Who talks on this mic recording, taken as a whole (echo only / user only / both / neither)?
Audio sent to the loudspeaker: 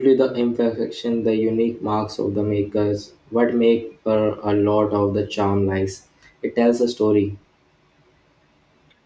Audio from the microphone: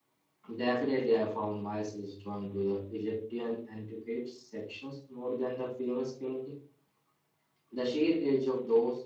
user only